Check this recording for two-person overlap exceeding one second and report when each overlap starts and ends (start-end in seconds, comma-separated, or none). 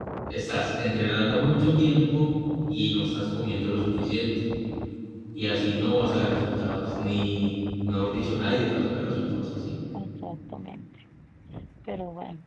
none